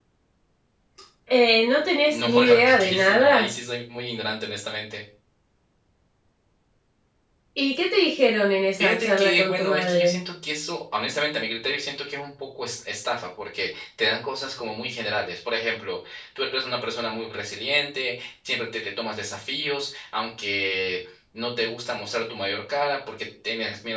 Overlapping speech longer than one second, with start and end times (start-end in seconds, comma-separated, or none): 2.1-3.5, 8.8-10.2